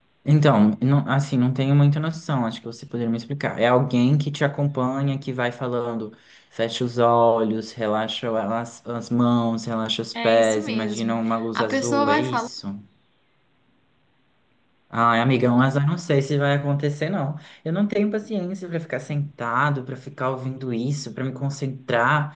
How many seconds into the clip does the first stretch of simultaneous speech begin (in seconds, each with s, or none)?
10.1 s